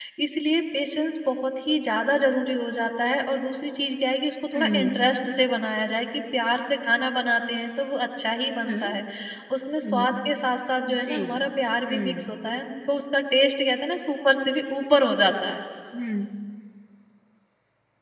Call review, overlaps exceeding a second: none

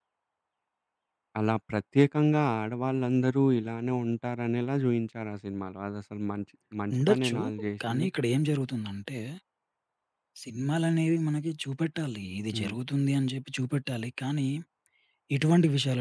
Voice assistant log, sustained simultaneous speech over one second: none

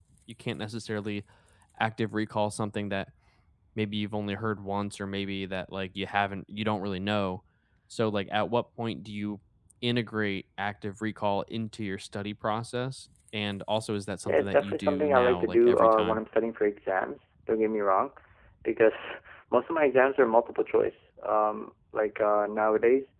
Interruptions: present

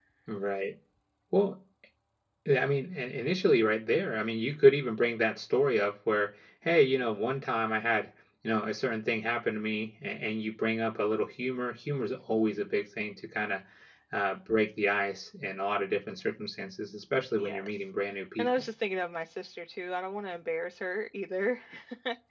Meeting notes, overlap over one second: none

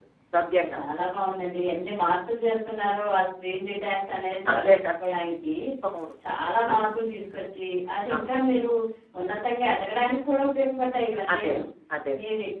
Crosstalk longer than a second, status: none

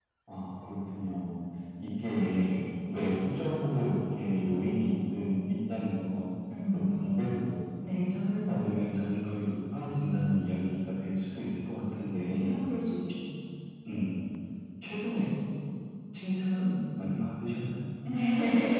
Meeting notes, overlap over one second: none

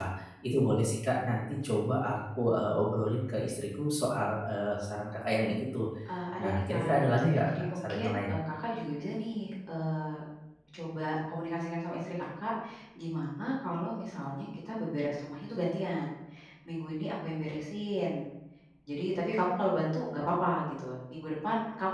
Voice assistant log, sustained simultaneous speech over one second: present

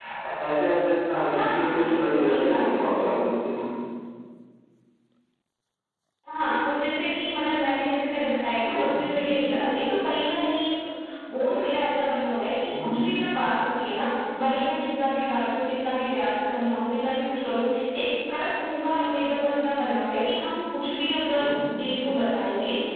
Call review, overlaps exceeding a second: present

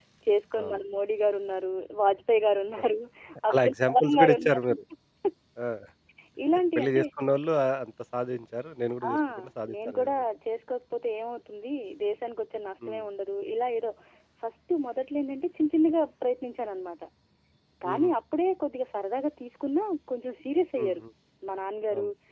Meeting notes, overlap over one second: present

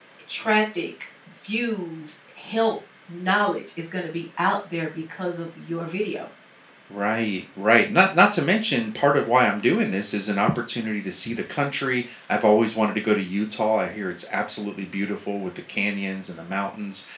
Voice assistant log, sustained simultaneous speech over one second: none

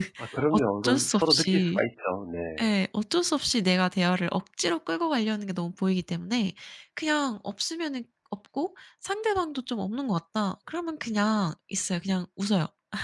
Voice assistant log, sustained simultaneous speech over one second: present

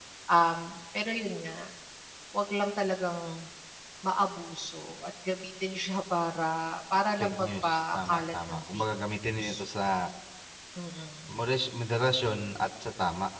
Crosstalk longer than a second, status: present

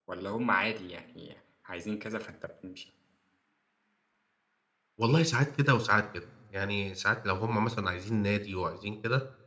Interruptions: none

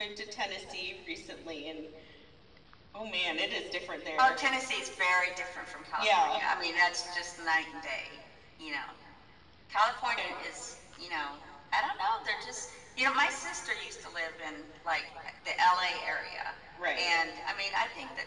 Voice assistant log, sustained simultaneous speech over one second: none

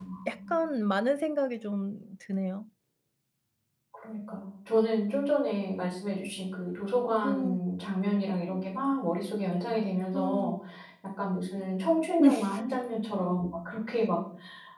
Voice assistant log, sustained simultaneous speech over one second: none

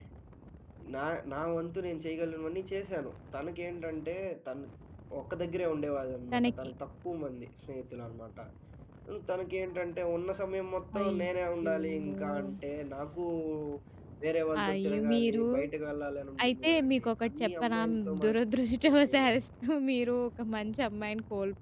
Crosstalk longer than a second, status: present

